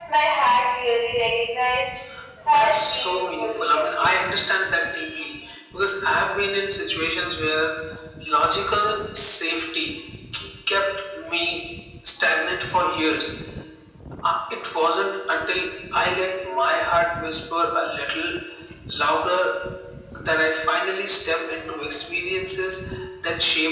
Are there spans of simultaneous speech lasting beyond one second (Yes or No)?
Yes